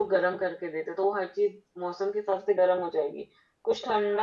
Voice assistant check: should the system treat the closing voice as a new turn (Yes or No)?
No